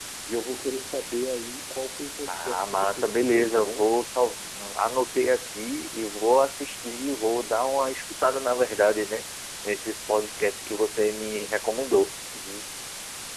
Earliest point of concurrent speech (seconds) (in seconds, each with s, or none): 2.3 s